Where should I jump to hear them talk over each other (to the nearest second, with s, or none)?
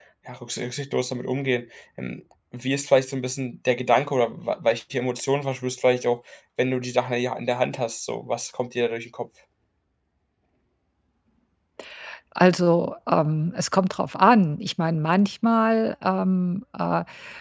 none